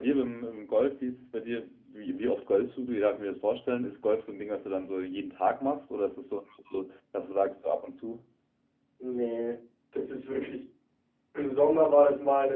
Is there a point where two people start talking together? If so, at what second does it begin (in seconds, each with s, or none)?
none